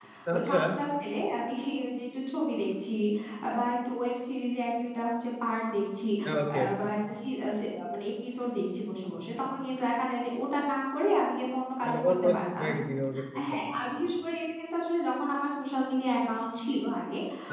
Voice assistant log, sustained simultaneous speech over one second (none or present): none